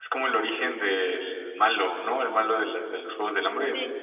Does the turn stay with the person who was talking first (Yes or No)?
Yes